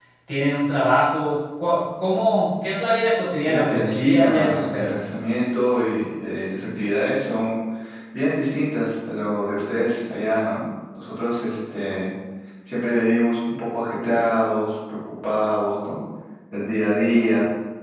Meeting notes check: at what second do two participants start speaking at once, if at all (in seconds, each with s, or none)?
3.4 s